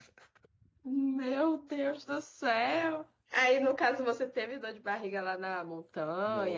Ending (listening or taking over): taking over